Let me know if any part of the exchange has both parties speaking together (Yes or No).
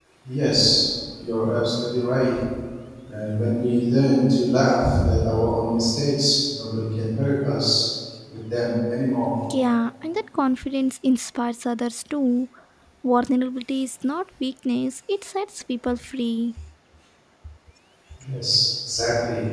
No